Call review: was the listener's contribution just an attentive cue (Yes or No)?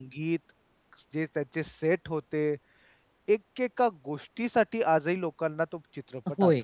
No